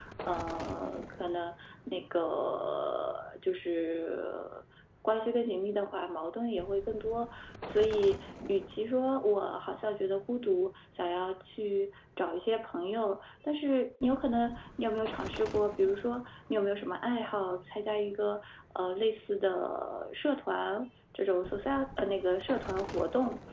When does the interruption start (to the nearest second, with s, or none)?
none